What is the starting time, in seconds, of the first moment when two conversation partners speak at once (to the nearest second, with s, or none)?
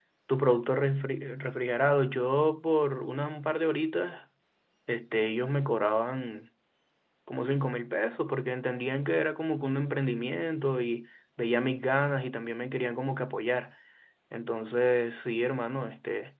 none